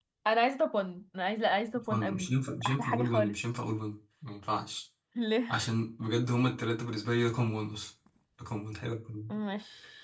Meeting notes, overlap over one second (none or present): present